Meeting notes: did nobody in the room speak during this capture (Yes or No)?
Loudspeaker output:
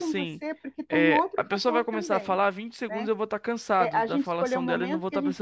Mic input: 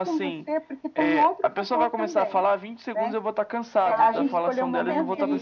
No